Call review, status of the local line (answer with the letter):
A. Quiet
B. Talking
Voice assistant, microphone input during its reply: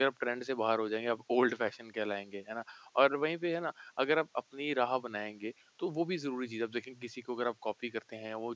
B